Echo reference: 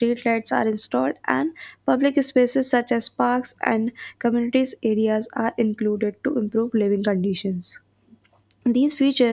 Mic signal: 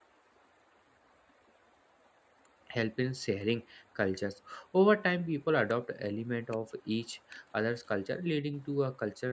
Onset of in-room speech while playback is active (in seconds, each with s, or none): 2.7 s